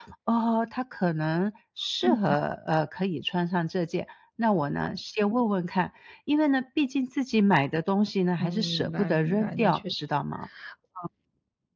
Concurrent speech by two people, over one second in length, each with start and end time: 8.4-10.0

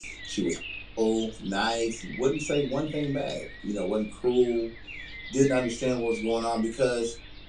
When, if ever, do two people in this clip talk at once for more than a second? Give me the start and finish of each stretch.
none

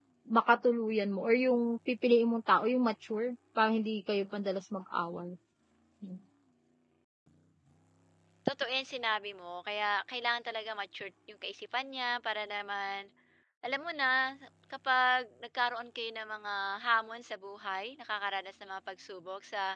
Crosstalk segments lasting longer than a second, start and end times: none

